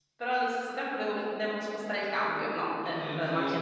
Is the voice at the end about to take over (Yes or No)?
Yes